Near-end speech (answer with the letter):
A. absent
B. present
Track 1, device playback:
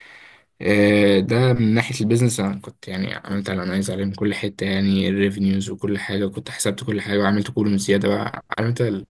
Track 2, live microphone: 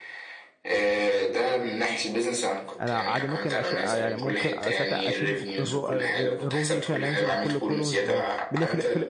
B